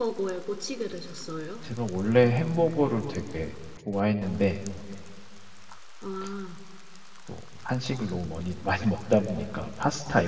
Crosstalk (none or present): none